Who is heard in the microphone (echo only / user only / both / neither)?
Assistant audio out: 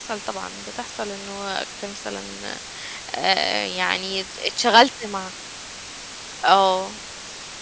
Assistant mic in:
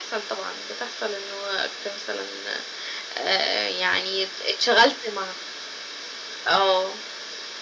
echo only